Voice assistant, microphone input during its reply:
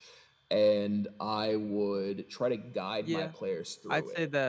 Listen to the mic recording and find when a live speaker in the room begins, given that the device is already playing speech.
3 s

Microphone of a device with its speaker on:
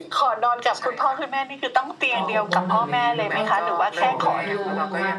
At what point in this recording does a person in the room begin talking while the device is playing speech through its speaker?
2 s

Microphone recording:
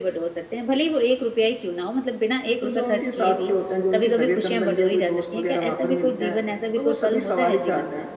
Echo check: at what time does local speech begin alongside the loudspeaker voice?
3 s

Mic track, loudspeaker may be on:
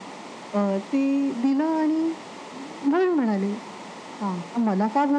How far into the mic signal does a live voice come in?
none

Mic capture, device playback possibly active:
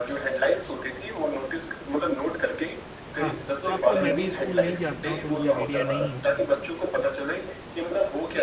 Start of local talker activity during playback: 3 s

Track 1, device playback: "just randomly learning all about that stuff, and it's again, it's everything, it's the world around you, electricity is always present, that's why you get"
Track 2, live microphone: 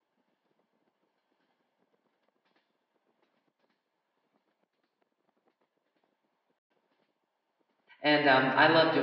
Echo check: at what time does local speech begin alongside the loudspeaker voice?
8 s

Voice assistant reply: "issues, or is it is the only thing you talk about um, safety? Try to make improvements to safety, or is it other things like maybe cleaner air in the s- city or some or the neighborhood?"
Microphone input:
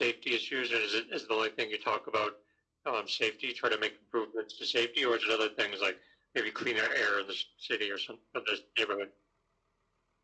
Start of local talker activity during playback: none

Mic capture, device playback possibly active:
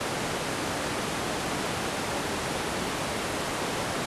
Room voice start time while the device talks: none

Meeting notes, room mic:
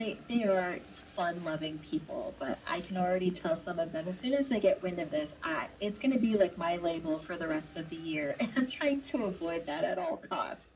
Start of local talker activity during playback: none

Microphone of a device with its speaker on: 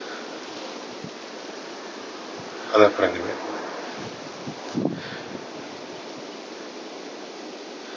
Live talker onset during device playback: 3 s

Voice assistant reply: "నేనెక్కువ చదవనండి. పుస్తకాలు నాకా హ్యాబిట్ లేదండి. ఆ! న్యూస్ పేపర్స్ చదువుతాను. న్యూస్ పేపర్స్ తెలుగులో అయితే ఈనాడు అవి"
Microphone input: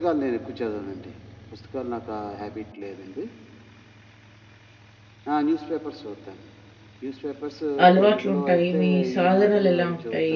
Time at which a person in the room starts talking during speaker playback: 8 s

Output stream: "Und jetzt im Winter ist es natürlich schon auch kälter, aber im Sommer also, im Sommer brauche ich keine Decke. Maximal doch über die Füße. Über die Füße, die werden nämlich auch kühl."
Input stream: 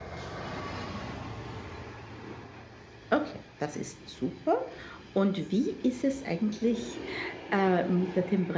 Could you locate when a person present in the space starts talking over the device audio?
3 s

